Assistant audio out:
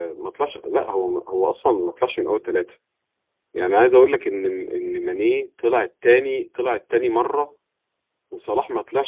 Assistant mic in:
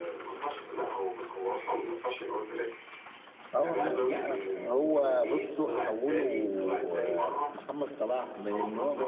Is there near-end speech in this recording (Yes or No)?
Yes